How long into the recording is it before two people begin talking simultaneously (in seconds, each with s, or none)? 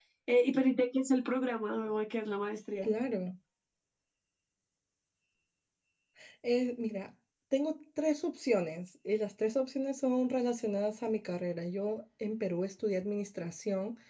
none